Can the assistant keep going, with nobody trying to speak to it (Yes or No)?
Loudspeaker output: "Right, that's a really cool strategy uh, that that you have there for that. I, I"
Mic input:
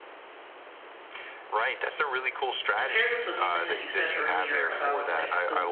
No